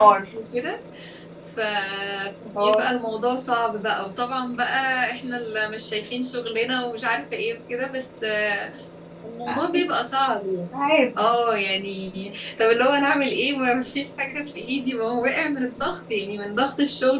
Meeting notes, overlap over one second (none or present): none